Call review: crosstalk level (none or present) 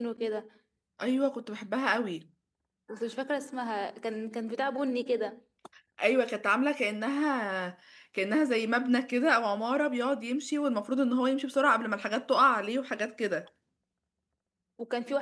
none